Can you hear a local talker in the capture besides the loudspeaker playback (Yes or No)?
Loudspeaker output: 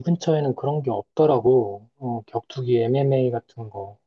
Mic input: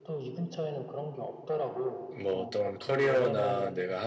Yes